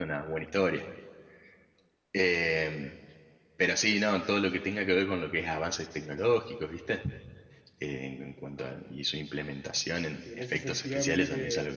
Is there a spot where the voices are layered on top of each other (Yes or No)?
Yes